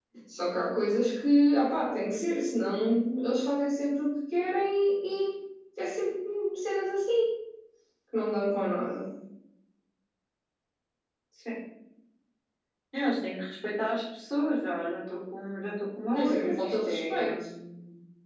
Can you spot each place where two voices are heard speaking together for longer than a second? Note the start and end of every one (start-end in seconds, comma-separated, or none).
16.1-17.4